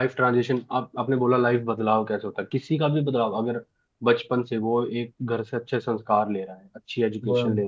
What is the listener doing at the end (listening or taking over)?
listening